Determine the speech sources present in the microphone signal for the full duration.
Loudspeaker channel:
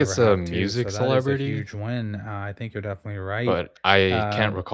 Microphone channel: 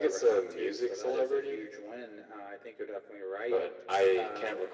echo only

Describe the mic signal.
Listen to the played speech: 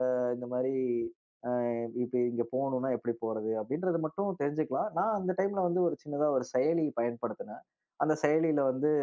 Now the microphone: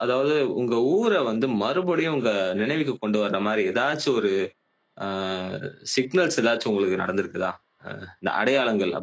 user only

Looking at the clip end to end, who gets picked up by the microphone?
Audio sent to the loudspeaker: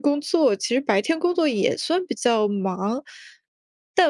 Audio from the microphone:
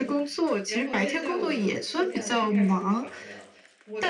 both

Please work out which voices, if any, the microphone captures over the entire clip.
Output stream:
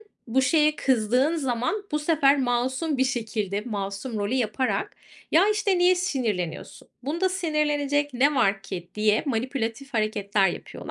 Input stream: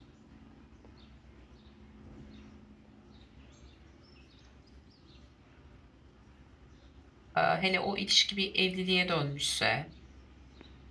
user only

